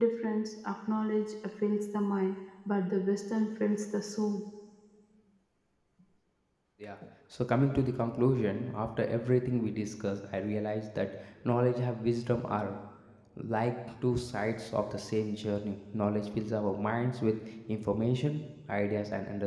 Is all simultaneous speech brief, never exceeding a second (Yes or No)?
Yes